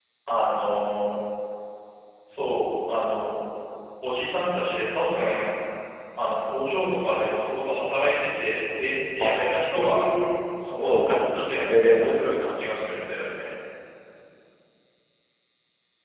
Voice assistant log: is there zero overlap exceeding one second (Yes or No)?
No